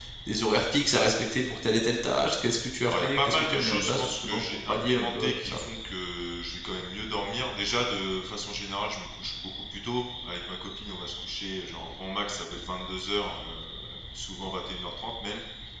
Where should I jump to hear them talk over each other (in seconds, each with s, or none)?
2.9 s